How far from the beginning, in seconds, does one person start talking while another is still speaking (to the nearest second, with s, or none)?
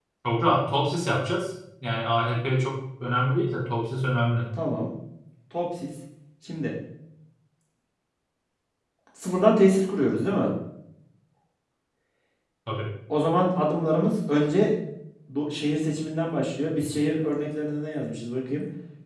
none